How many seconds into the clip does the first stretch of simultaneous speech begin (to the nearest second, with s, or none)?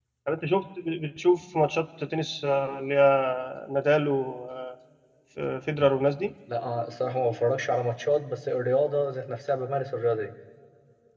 none